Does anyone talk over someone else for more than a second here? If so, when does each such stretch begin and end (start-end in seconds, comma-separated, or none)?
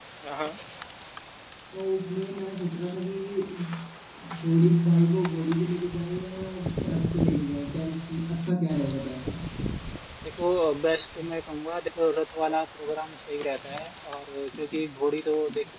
none